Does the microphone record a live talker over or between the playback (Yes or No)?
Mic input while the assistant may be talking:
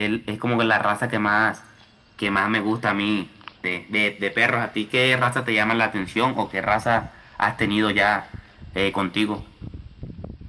No